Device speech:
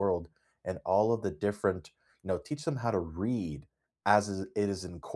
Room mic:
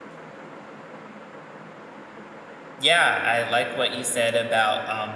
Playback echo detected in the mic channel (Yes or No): No